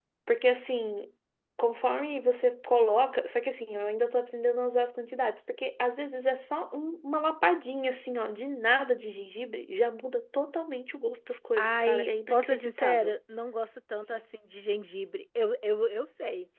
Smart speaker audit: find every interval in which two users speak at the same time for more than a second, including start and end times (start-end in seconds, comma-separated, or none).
11.6-13.2